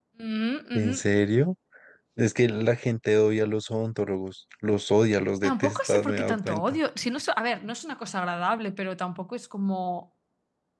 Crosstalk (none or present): present